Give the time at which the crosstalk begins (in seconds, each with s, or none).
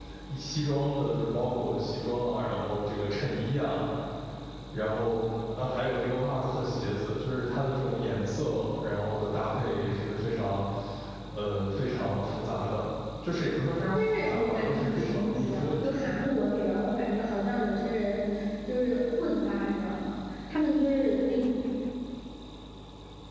13.9 s